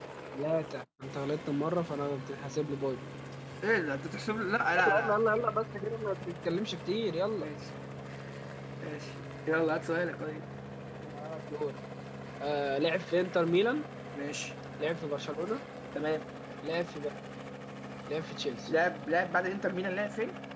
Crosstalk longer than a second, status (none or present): none